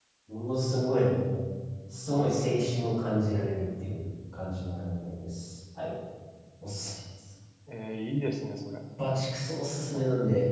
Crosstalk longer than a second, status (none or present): none